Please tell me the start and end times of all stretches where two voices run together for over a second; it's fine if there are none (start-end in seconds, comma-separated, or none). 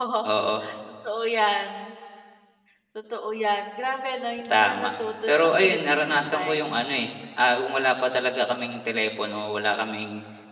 5.3-6.6